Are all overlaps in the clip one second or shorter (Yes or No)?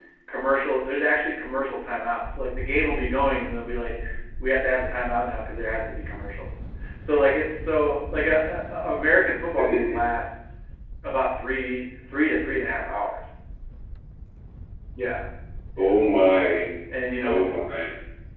Yes